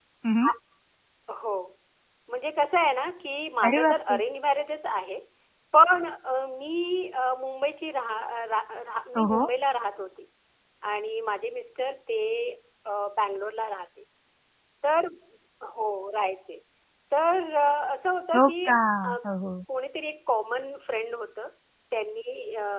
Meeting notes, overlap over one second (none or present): none